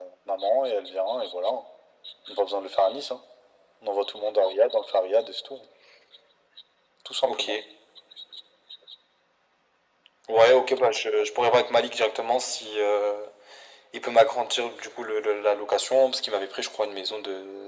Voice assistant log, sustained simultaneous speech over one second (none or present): none